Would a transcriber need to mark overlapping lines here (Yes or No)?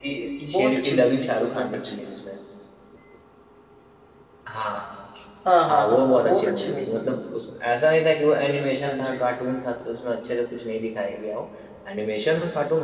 Yes